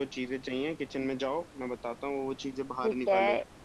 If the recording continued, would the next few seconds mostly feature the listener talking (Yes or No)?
Yes